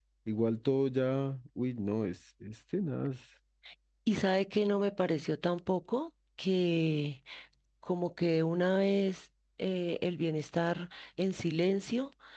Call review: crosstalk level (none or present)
none